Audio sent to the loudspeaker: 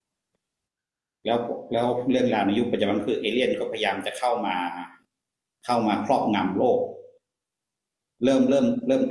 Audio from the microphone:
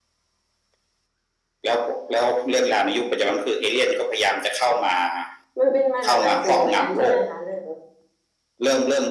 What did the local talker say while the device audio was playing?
มันเป็นมาจากหนังสือเหมือนกันใช่ไหมคะเรื่องนี้

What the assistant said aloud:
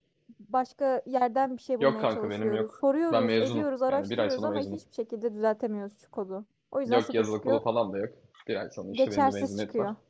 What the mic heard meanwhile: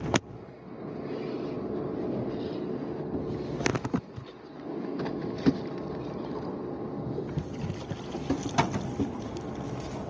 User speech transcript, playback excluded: none

